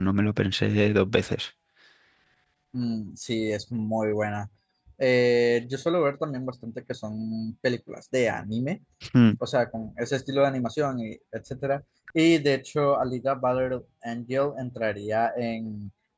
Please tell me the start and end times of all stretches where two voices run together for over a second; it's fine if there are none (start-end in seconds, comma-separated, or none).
none